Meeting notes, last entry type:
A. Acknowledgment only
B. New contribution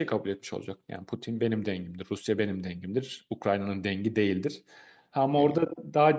A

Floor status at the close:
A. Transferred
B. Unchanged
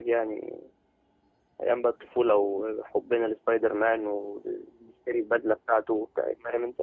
A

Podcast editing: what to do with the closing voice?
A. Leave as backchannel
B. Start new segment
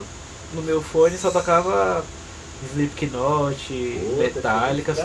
B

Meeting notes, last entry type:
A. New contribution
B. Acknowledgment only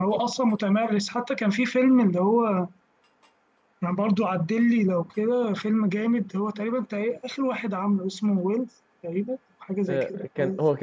A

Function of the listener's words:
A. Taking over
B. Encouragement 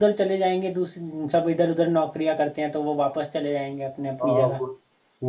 A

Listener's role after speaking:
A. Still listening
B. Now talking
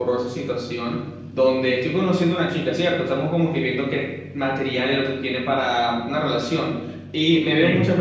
A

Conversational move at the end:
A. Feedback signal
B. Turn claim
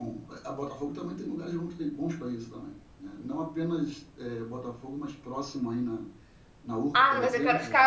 B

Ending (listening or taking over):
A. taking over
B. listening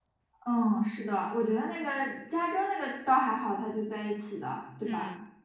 B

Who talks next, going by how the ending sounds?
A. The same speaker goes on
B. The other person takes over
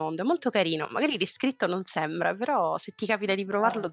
B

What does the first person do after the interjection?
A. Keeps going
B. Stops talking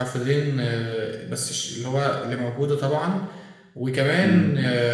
A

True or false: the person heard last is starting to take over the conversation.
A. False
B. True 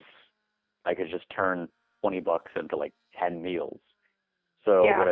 A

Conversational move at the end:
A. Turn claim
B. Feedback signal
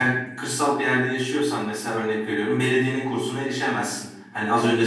B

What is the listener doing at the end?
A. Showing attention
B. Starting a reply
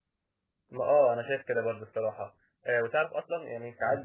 A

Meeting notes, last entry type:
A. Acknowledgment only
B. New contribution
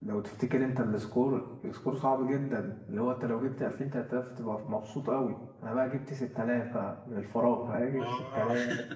A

